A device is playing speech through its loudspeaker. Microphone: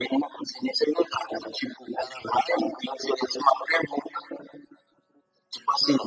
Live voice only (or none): none